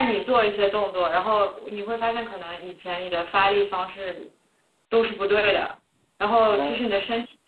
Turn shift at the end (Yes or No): No